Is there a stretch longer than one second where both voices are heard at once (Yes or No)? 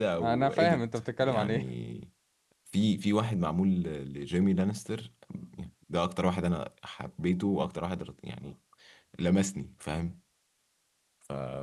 Yes